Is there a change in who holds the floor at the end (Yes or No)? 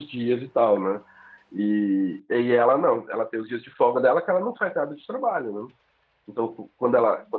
No